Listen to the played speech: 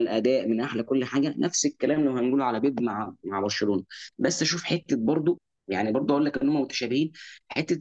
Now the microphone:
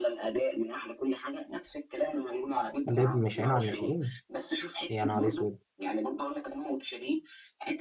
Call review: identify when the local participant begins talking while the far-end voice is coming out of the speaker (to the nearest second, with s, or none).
3 s